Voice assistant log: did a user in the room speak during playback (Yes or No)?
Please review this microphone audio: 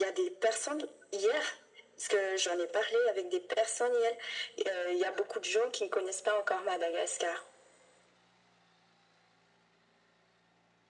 No